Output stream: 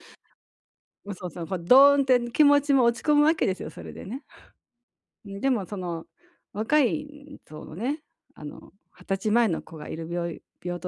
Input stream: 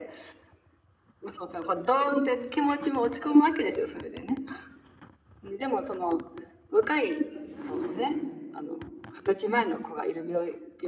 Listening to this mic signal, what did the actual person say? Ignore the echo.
ま、通じないですね、もう。

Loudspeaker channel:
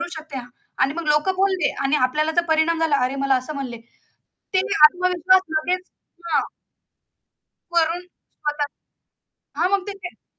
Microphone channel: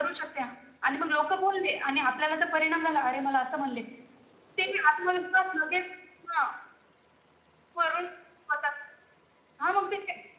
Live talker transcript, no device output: none

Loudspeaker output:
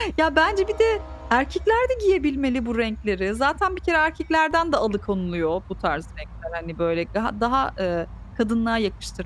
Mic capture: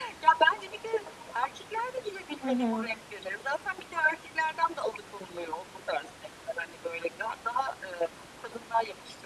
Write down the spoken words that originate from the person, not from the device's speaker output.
Hı hı.

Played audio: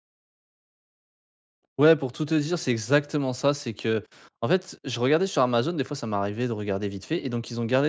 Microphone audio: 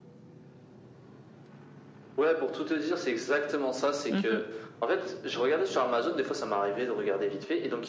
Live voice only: Mmh mh.

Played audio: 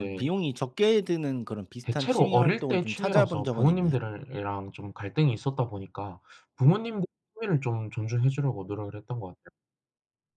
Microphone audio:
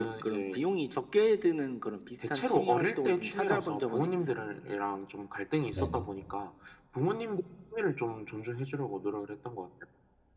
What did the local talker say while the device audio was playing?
네네.

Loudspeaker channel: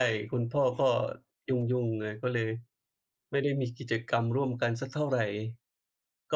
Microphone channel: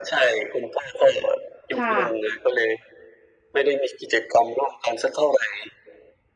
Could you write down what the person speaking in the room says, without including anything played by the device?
ค่ะ

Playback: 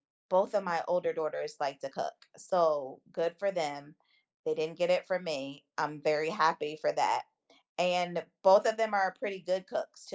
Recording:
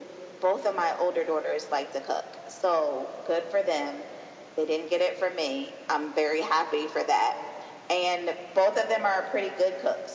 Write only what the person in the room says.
none

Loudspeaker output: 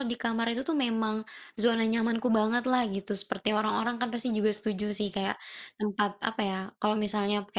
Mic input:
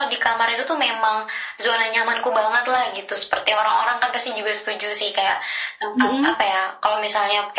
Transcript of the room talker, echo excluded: Mhm.

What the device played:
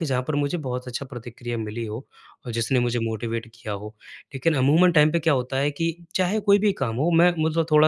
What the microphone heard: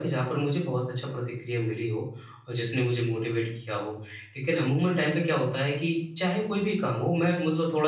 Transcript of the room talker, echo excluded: none

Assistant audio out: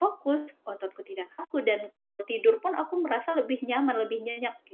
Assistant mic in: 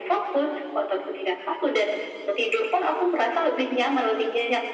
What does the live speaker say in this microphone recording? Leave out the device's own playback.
none

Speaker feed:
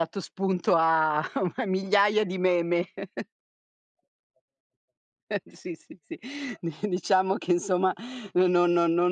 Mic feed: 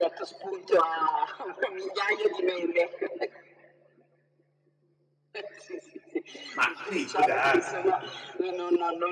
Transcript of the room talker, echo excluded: Ma sì può darsi.

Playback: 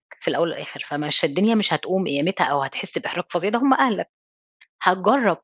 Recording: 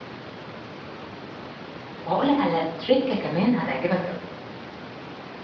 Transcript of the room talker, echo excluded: وهاقول لك على trick كمان هتعجبك أوي.

